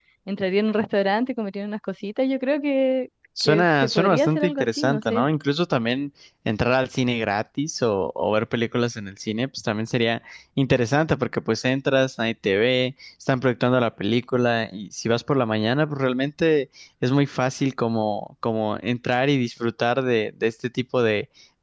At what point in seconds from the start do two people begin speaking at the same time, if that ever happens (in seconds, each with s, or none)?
3.4 s